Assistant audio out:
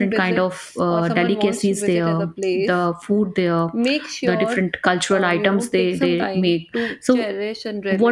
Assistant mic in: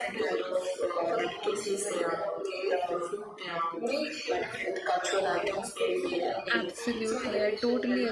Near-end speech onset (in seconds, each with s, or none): 6.5 s